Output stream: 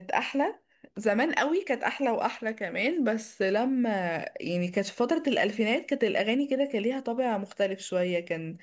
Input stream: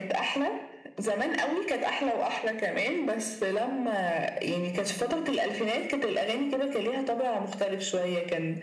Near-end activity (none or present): none